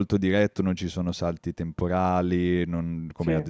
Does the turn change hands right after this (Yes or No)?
No